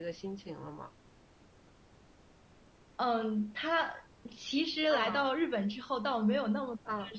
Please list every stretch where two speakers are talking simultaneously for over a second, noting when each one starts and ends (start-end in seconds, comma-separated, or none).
none